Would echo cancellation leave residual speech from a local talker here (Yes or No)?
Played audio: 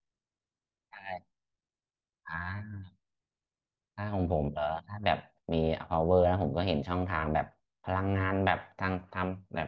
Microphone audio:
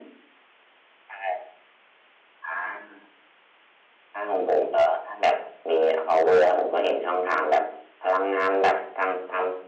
No